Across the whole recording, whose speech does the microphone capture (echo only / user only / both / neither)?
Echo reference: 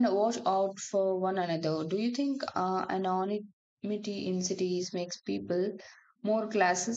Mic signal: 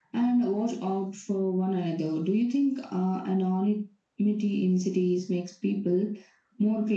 echo only